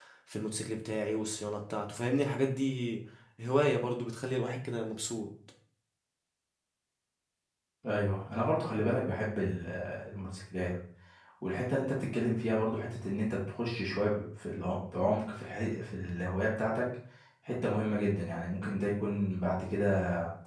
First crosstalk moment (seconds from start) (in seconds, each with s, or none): none